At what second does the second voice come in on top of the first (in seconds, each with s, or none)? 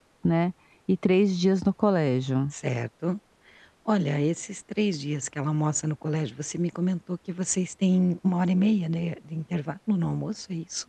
none